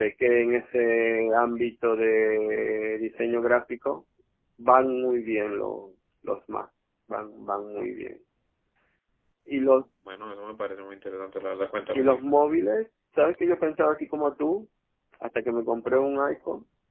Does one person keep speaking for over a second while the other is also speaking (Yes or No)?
No